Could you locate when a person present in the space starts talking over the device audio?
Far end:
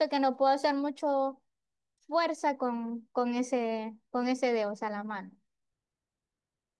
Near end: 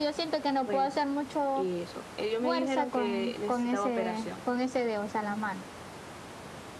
0.6 s

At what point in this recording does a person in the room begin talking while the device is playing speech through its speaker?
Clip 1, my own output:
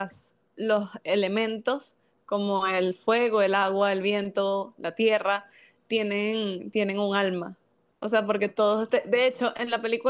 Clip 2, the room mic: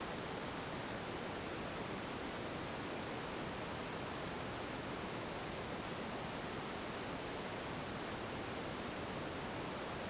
none

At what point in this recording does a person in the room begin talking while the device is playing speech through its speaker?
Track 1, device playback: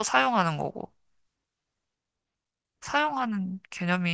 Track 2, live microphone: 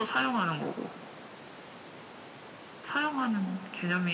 none

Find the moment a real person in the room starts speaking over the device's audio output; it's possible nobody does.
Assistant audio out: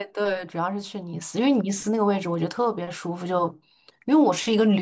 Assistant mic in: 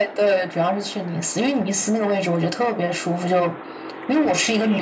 none

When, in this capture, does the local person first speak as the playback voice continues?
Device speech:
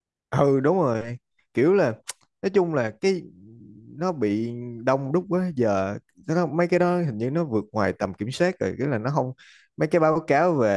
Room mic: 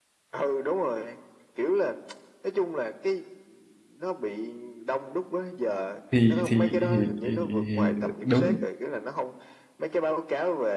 6.1 s

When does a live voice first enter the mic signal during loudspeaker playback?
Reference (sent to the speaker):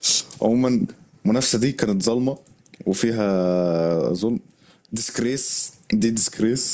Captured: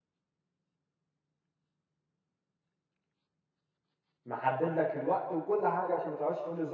4.2 s

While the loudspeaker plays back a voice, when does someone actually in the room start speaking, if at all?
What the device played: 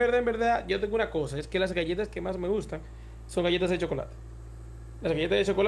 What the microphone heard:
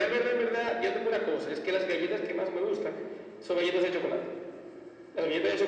none

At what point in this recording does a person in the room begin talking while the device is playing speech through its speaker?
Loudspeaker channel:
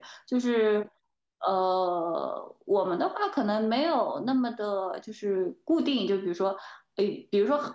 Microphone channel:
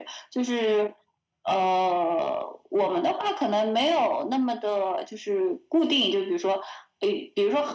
none

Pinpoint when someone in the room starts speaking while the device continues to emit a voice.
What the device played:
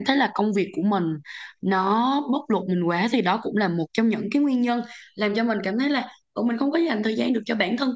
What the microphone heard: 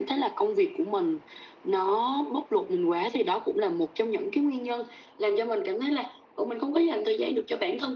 none

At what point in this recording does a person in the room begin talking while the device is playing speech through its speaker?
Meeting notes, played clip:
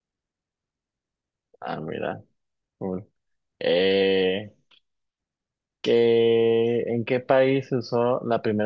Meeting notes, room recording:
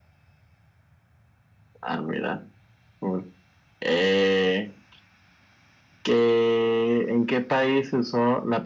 none

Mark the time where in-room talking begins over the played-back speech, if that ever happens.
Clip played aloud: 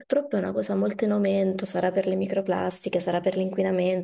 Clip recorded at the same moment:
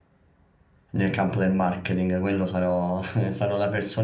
0.9 s

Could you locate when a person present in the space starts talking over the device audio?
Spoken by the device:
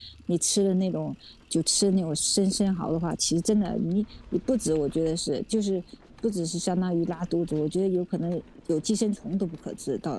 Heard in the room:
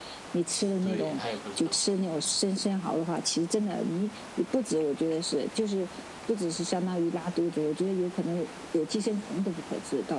0.8 s

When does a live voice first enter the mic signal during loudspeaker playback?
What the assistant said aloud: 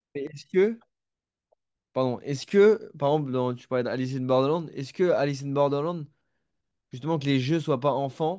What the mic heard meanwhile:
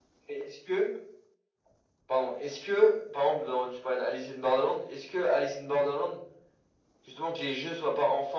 none

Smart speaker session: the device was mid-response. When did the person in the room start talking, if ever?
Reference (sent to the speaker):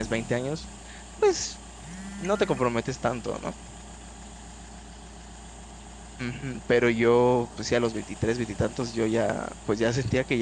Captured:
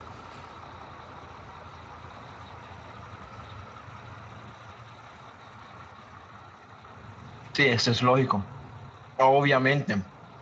7.5 s

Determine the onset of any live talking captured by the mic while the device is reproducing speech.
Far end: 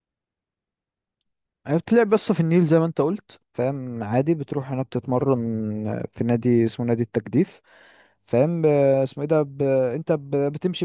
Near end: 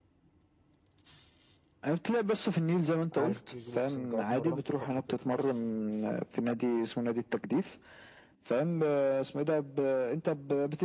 3.1 s

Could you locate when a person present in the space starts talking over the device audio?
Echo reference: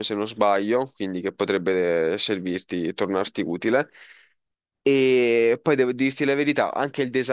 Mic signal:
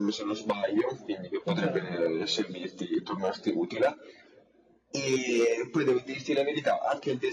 1.4 s

